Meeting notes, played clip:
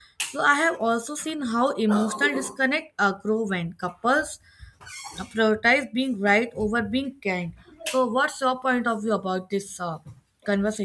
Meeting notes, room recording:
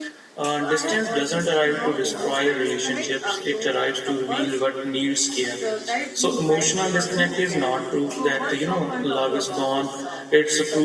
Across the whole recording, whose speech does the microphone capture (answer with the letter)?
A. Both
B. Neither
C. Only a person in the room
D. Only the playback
A